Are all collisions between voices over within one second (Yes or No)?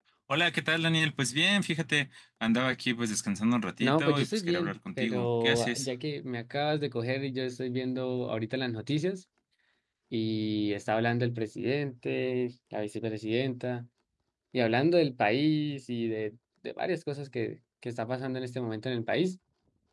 No